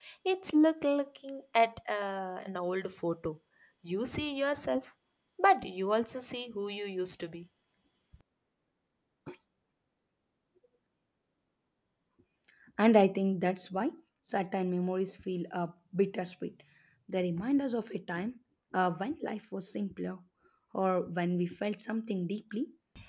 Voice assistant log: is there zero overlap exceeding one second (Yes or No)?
Yes